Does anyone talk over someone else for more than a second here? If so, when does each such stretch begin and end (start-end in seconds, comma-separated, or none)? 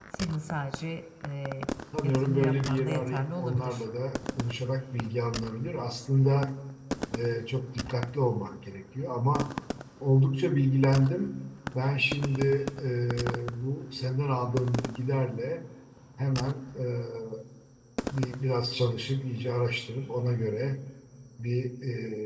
2.0-3.8